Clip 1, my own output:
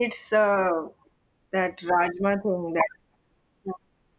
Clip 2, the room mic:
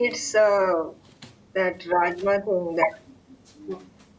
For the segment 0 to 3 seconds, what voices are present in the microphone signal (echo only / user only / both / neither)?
echo only